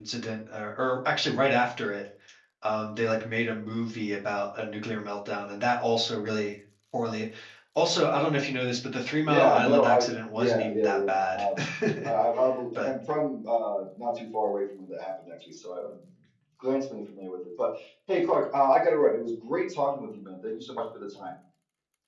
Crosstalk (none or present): present